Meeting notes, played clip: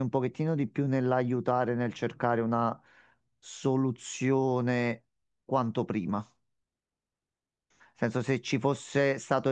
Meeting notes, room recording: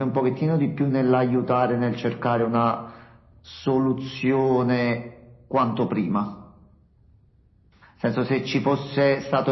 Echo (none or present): present